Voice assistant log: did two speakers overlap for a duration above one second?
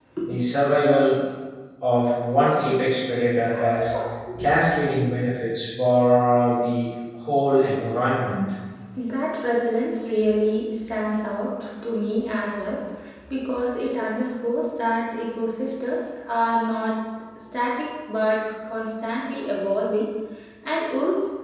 No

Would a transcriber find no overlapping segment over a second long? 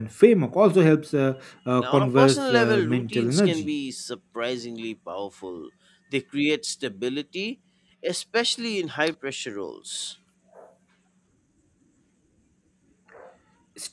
No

